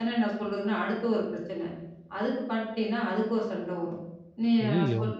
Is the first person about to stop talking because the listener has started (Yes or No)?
No